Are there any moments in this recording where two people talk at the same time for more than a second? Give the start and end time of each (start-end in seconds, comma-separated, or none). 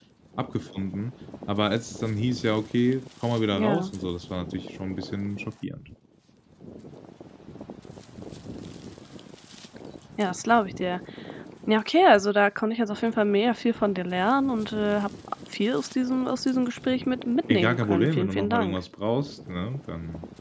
17.5-18.8